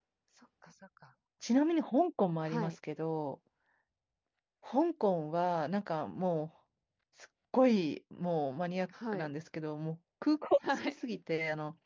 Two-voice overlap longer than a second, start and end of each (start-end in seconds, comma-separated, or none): none